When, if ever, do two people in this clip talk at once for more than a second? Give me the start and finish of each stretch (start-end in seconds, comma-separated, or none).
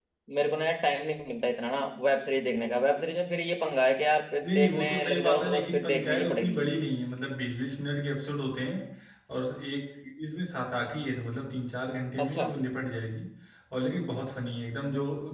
4.4-6.6